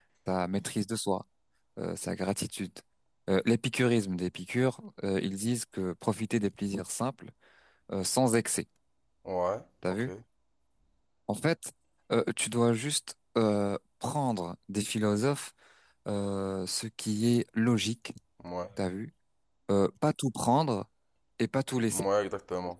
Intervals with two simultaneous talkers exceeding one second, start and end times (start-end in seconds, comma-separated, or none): none